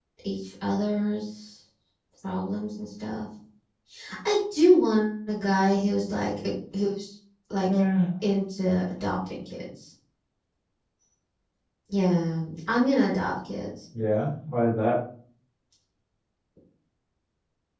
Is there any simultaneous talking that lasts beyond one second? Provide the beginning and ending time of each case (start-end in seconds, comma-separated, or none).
none